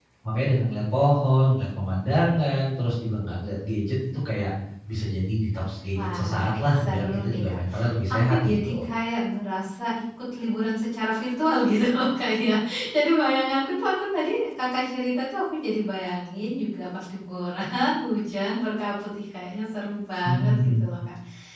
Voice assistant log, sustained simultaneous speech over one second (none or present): present